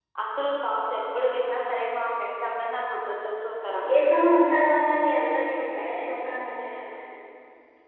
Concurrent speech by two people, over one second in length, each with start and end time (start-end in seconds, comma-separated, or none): none